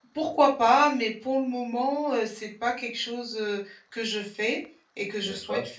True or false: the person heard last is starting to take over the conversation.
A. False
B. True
A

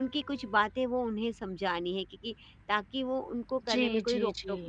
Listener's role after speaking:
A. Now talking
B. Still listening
A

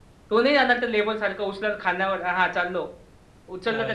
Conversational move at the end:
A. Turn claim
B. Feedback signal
B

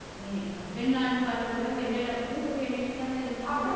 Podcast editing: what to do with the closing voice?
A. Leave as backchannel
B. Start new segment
B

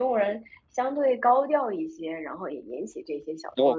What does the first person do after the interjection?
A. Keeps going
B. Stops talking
B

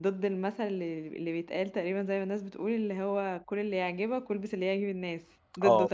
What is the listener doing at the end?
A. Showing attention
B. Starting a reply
B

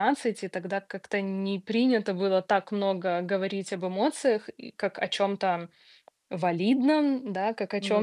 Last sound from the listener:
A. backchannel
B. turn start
A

